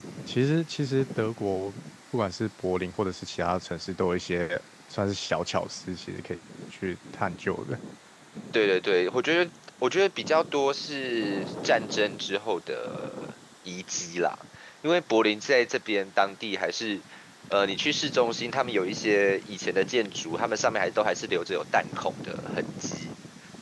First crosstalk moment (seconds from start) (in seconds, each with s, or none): none